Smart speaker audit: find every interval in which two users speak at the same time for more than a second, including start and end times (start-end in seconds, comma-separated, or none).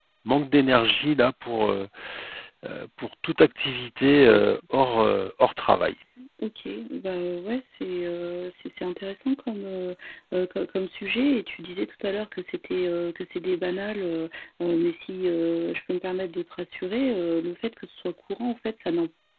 none